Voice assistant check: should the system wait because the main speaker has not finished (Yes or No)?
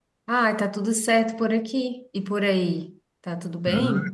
No